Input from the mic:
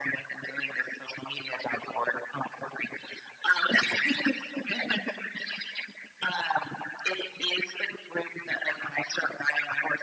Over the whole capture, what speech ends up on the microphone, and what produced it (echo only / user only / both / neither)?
echo only